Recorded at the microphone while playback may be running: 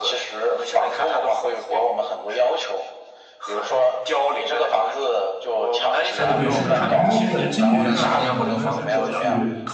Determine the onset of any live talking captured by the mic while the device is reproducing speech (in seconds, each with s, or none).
6.2 s